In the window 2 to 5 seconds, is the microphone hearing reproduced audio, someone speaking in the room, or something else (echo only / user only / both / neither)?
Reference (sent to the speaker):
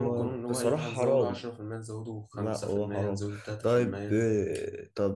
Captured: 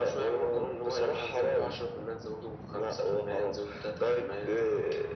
echo only